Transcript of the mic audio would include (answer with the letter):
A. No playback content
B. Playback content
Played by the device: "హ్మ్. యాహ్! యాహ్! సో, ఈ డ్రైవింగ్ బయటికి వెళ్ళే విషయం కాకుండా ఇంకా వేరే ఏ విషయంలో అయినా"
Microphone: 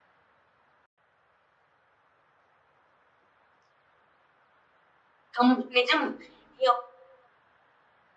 A